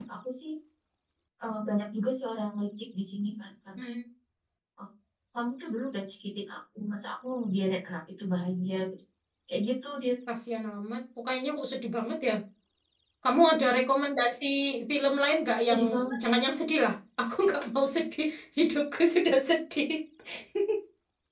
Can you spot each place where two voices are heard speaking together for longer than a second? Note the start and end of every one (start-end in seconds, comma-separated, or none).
none